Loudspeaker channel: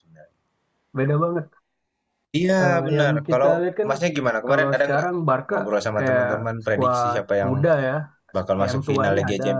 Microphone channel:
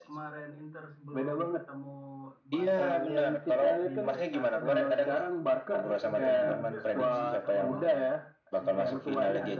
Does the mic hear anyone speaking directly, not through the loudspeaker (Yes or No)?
Yes